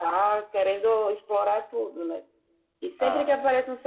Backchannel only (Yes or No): Yes